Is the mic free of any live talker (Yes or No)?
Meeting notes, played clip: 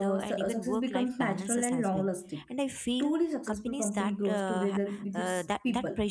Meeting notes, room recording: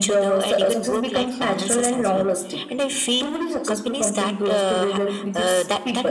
Yes